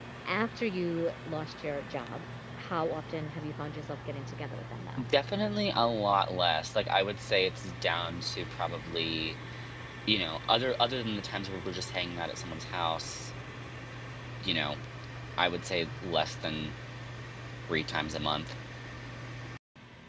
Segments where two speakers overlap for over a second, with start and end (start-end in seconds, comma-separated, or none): none